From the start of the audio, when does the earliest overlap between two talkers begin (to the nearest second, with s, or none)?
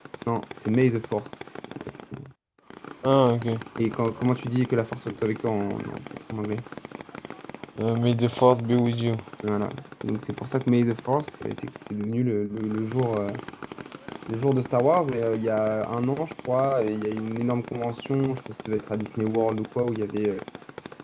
none